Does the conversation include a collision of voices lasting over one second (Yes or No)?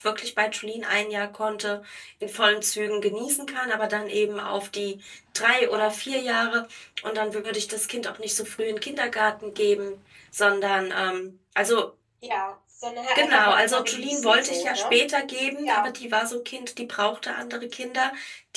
Yes